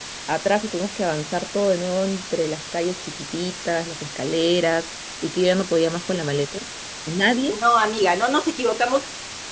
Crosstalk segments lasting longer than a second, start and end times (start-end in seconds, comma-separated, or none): none